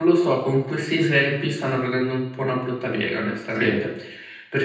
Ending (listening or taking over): listening